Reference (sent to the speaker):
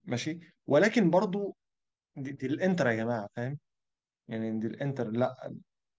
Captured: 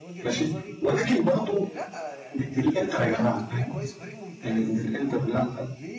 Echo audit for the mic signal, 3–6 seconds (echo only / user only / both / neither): both